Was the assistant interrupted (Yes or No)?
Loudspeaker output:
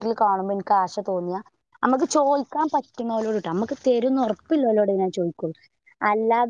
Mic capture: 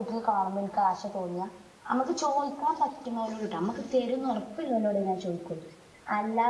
No